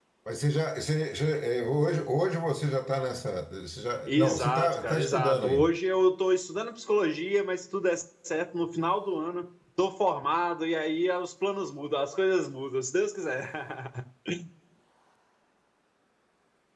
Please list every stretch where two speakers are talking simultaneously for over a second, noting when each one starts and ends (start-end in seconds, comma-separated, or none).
4.1-5.7